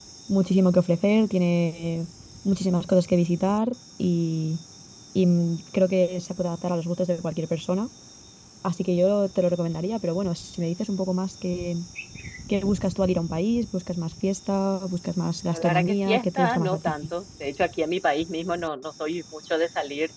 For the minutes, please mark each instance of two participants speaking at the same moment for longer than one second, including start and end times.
15.5-17.1

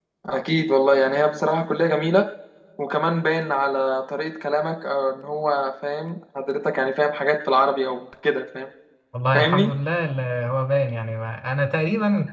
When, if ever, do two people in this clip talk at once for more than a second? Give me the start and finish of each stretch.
none

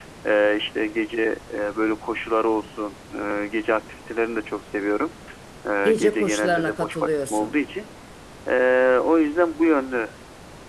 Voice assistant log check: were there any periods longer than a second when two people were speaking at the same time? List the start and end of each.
5.8-7.5

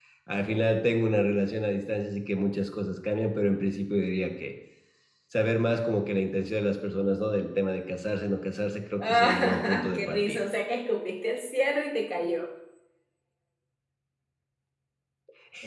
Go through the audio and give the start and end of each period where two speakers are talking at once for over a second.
9.0-10.4

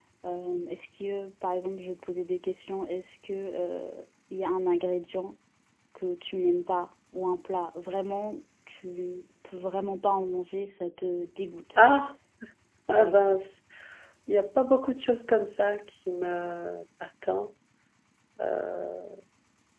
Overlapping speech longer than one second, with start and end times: none

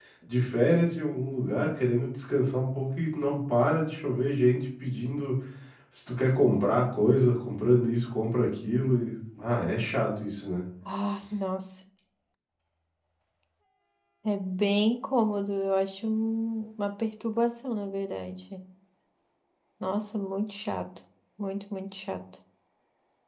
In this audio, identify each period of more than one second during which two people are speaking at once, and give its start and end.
none

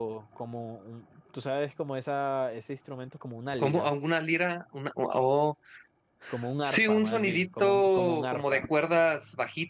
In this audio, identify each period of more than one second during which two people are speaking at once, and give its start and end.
6.7-8.6

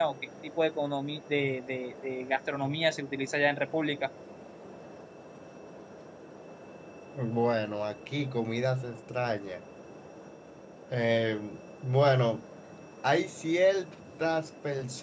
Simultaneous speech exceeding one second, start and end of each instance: none

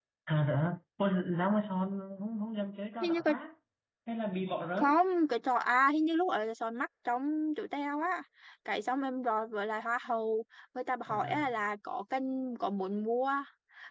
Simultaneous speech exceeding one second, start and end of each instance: none

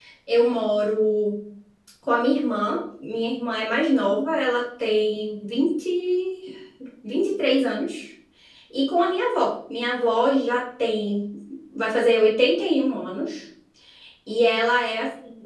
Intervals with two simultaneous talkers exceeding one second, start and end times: none

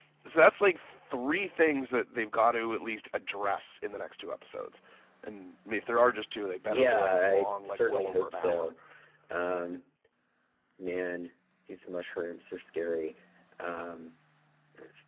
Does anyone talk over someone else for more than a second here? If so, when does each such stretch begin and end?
6.6-8.7

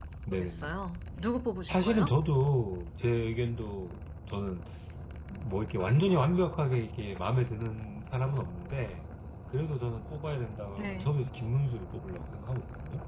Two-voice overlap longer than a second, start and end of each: none

